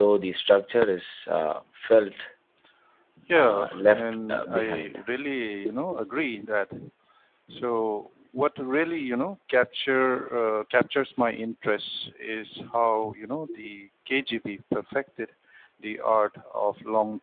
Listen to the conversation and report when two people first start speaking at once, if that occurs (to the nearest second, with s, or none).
3 s